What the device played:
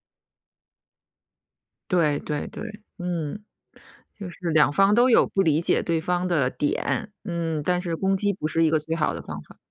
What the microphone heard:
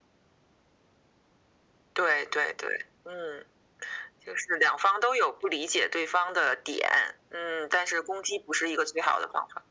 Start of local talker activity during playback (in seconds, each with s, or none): none